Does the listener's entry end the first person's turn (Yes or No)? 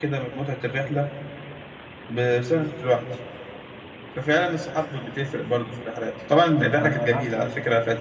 No